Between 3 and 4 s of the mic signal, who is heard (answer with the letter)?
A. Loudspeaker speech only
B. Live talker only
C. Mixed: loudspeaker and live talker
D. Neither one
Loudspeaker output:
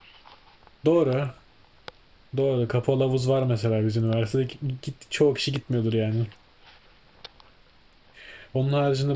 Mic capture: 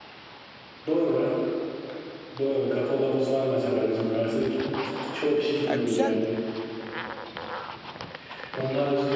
A